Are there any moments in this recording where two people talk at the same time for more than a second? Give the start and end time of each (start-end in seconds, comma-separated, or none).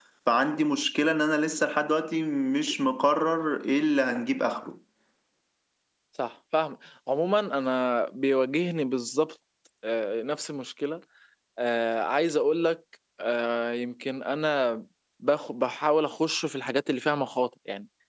none